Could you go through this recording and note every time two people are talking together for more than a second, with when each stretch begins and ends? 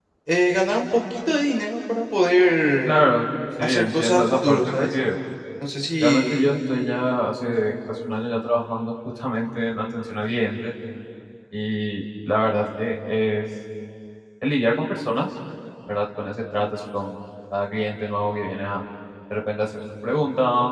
3.6-4.9

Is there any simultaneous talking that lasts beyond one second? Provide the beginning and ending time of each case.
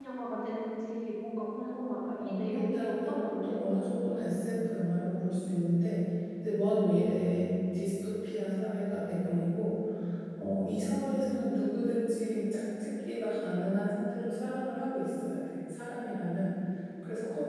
2.2-3.5

